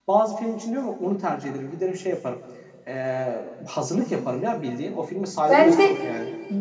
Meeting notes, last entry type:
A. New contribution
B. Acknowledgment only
A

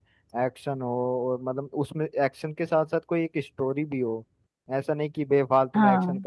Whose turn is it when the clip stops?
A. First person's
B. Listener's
A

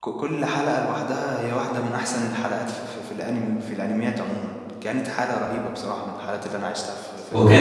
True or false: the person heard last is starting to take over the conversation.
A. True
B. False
A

